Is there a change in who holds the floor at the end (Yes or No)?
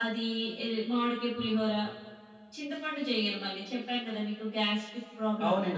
Yes